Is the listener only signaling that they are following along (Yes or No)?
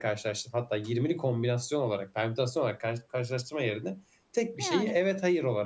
Yes